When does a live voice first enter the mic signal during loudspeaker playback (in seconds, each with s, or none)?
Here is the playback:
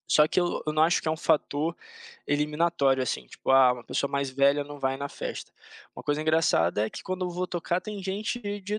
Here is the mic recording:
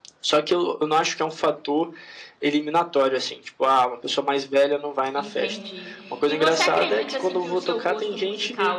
5.1 s